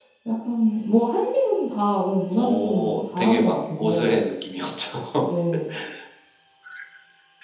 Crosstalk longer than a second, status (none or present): present